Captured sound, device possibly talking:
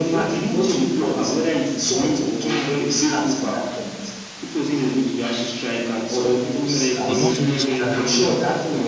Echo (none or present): present